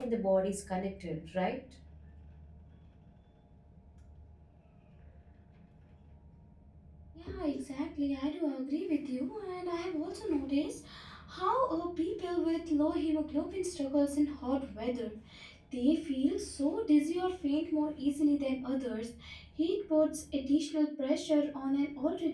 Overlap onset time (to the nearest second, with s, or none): none